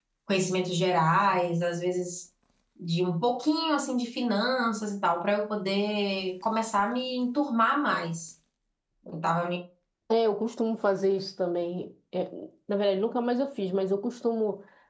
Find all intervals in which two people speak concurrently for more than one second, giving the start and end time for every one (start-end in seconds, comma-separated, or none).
none